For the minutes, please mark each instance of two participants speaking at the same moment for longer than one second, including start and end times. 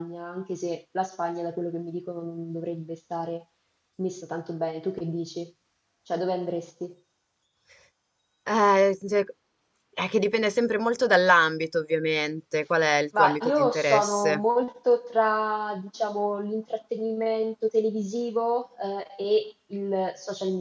13.2-14.4

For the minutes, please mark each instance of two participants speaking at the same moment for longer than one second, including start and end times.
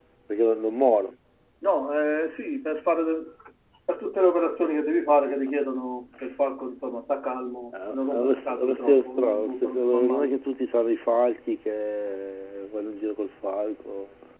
7.7-10.3

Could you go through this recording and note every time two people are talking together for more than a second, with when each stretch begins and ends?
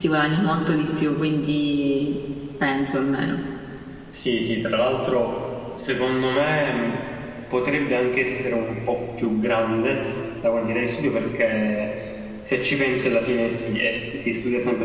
none

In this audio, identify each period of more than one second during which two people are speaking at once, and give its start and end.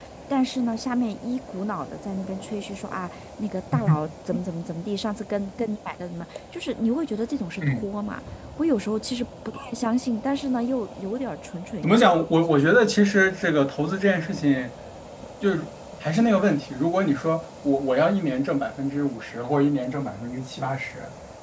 none

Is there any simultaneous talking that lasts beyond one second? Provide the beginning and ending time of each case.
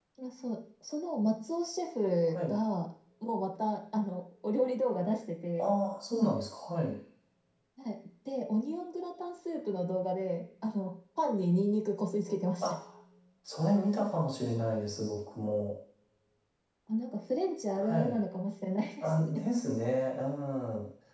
none

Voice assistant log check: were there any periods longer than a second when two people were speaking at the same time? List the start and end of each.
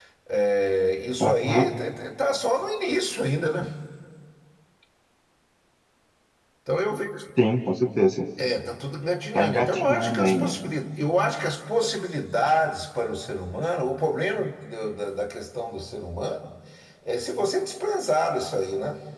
9.3-10.6

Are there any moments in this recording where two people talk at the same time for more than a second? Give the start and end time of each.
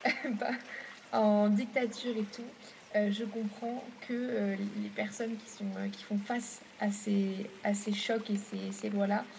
none

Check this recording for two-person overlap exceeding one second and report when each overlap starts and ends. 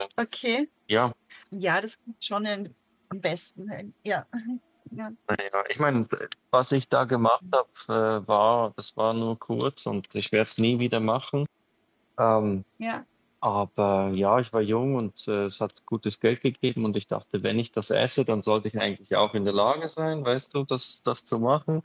none

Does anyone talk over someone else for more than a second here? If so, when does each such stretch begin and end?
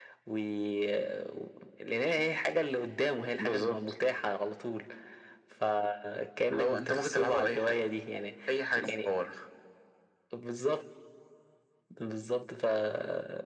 6.5-7.8

